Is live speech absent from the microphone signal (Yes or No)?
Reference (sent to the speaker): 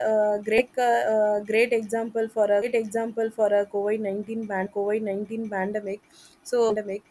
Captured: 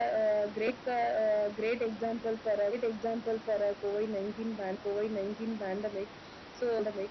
Yes